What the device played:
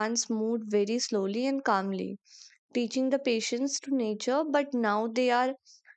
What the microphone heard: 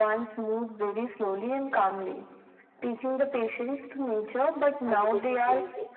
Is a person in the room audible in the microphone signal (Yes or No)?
Yes